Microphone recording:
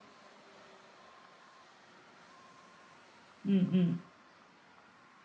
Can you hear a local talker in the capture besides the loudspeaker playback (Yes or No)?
Yes